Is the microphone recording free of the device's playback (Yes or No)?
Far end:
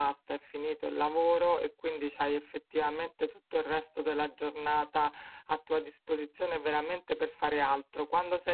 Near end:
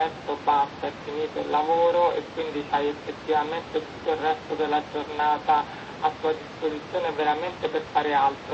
No